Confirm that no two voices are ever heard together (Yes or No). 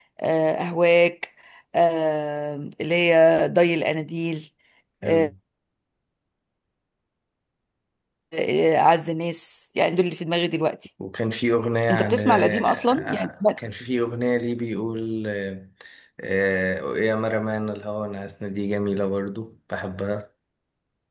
No